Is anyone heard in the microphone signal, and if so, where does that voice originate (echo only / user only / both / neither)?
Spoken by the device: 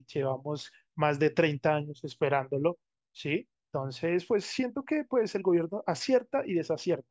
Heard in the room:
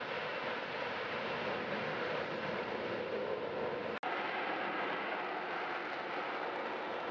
neither